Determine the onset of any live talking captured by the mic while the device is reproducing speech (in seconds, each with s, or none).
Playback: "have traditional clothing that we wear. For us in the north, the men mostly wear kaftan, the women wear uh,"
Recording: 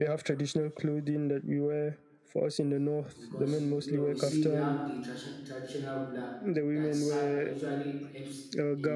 3.2 s